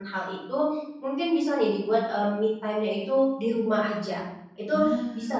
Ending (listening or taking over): listening